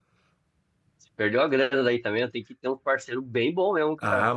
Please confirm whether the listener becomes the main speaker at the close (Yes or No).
Yes